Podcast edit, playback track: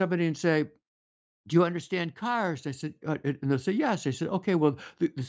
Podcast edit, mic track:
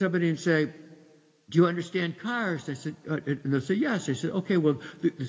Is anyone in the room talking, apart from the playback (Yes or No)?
No